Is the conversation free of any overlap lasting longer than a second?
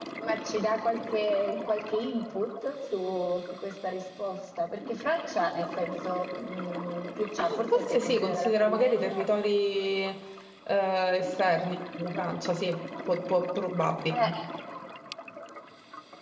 No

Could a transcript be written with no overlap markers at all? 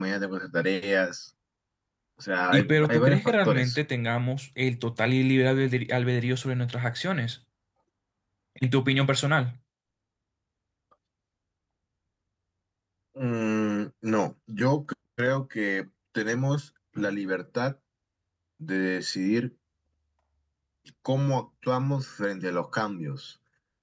No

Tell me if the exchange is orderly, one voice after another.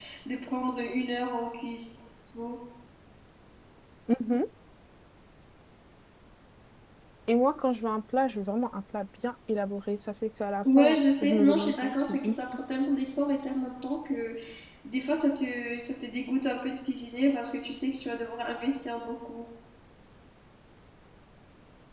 No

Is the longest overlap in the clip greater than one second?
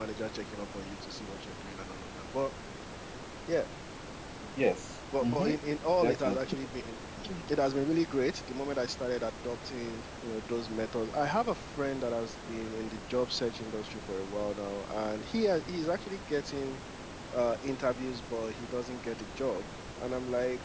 No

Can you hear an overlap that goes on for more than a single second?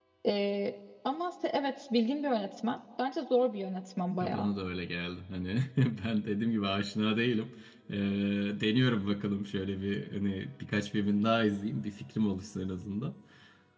No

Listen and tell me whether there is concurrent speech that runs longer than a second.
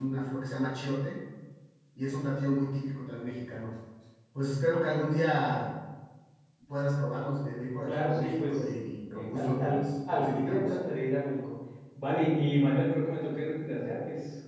Yes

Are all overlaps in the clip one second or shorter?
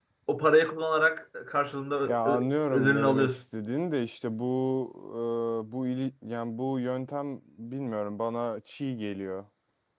No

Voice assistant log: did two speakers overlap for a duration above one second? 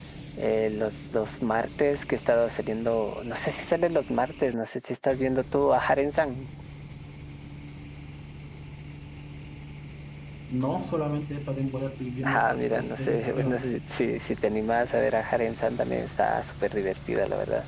Yes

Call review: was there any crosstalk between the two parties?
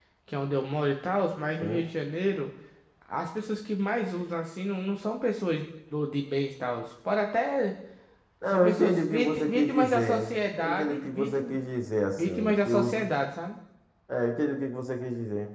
Yes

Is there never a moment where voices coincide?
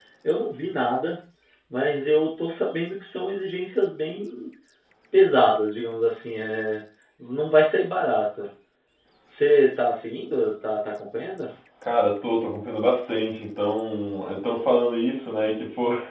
Yes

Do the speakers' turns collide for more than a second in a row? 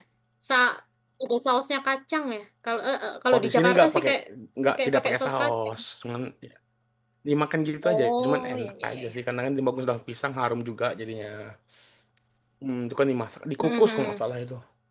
Yes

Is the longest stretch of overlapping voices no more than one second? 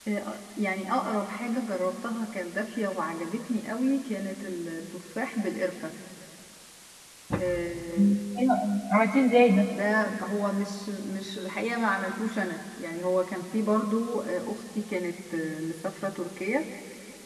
Yes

